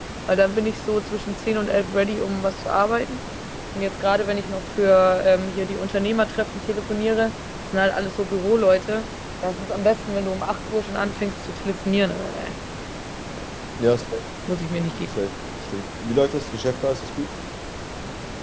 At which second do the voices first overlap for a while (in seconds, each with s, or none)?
none